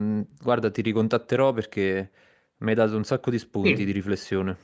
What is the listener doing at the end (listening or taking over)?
taking over